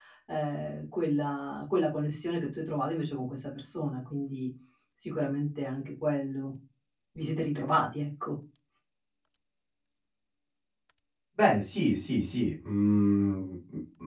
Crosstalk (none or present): none